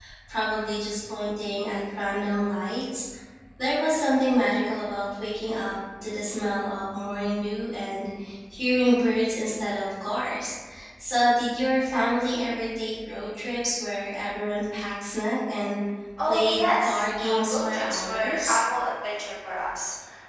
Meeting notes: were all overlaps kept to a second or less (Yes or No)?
No